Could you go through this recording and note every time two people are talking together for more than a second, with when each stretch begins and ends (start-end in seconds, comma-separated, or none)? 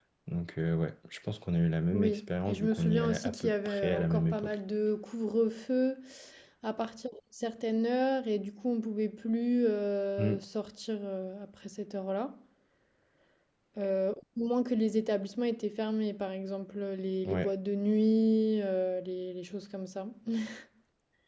1.9-4.5